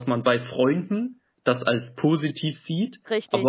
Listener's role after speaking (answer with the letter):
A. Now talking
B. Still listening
B